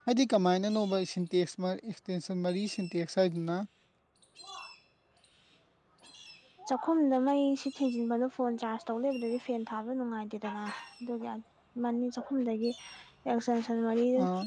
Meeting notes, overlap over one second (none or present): none